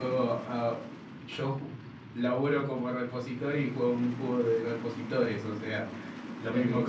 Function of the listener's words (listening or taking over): listening